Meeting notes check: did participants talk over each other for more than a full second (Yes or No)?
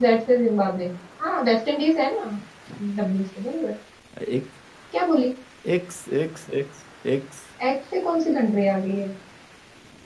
No